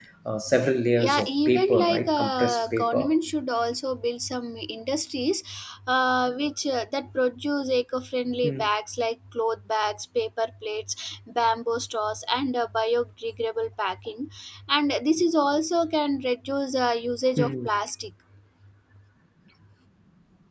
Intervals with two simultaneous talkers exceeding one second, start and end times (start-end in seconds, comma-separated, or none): 1.0-3.1